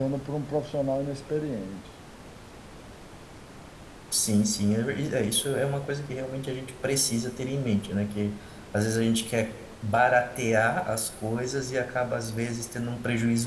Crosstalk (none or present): none